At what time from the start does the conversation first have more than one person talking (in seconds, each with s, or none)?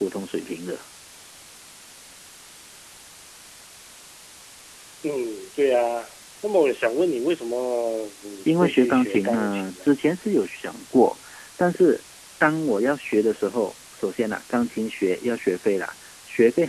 8.5 s